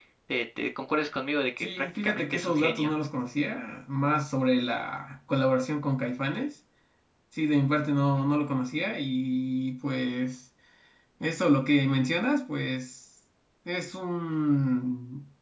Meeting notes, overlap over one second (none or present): present